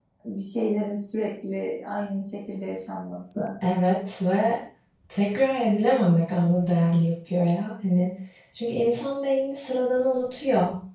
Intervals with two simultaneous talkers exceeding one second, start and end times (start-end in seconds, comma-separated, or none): none